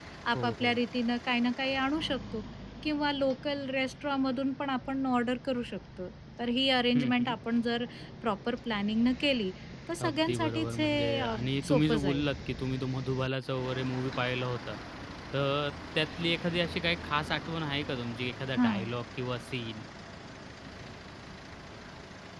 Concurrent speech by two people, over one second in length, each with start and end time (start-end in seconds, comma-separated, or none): 10.1-12.2